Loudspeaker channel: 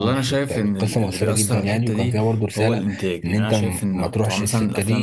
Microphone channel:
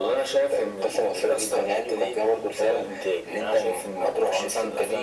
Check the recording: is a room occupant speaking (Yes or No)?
No